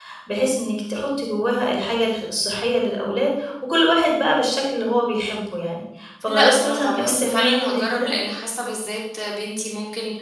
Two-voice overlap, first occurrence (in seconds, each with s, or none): 6.3 s